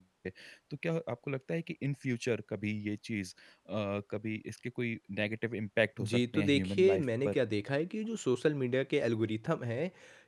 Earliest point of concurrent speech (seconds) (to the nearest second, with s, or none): 6 s